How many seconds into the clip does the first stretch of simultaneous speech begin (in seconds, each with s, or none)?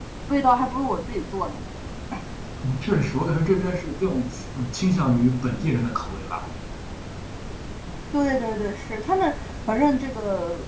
none